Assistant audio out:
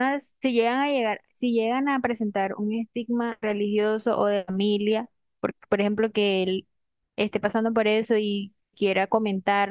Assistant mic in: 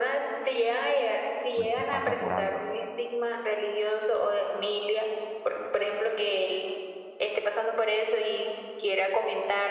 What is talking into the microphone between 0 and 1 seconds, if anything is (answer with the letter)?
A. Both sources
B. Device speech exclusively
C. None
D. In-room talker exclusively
B